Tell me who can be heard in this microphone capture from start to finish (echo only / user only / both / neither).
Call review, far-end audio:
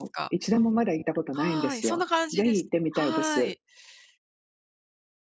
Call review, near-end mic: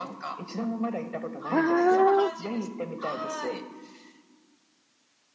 both